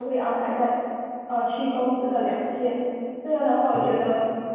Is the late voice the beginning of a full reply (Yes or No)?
No